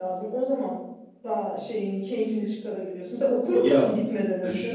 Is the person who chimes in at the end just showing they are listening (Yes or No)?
No